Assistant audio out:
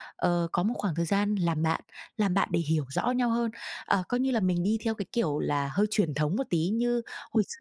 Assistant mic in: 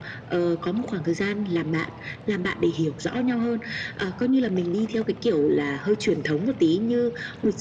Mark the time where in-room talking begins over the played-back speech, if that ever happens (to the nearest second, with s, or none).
none